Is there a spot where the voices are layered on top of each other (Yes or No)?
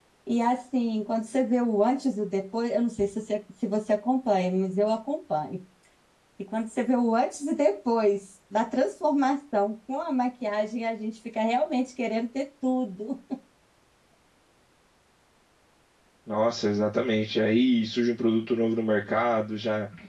No